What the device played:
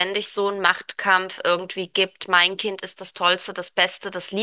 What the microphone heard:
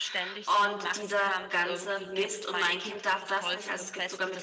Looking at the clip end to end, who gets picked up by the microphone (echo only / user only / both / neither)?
both